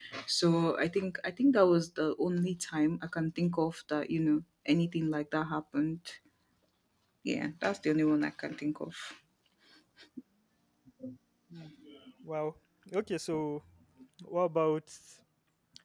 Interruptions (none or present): none